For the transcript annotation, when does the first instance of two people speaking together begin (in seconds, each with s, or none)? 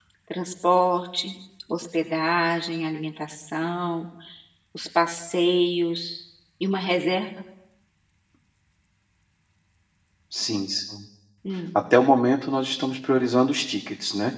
none